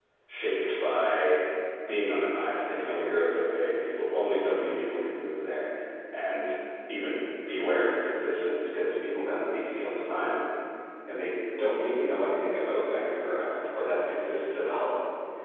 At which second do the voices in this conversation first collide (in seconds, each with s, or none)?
none